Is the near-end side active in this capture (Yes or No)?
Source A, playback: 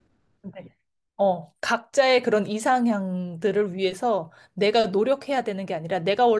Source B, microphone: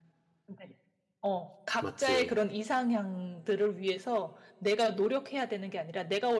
Yes